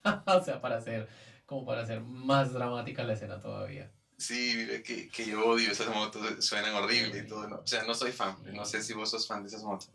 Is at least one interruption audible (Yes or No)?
Yes